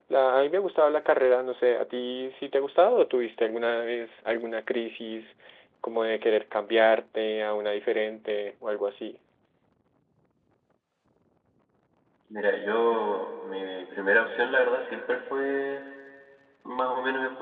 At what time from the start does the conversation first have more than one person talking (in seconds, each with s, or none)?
none